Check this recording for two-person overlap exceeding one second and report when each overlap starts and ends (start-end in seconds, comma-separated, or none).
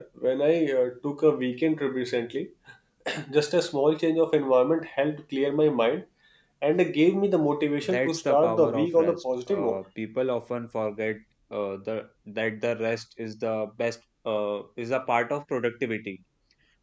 7.8-9.8